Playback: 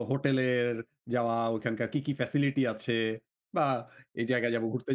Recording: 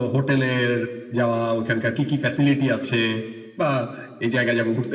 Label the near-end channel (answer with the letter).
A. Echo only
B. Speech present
A